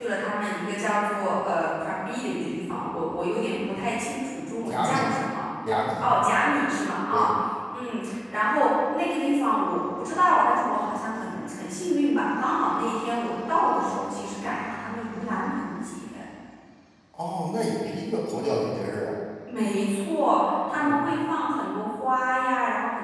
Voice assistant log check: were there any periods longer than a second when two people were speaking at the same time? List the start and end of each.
none

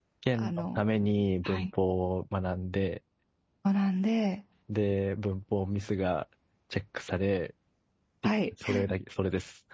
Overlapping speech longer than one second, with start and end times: none

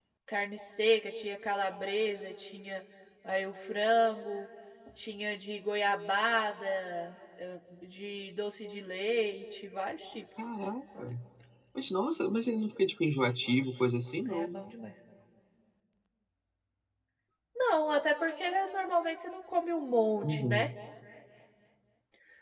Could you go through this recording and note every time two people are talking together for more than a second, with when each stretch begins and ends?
none

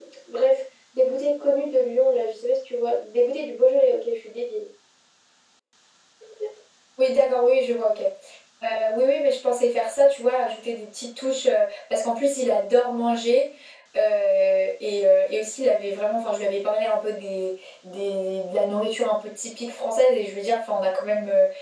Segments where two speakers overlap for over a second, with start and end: none

